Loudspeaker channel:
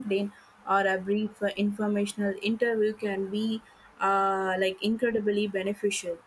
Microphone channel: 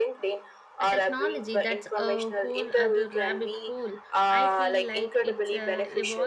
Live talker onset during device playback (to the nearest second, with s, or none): 1 s